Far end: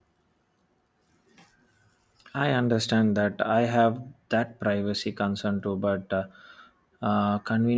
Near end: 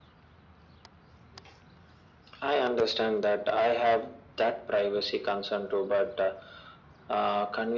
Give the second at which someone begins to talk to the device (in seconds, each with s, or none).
none